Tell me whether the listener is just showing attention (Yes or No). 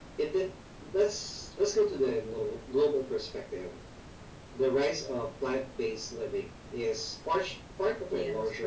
Yes